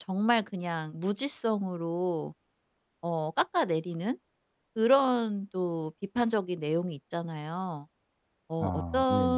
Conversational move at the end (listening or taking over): listening